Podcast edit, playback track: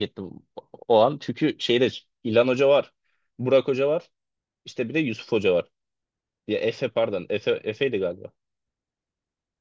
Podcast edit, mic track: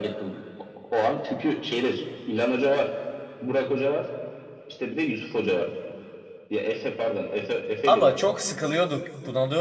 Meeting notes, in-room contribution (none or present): present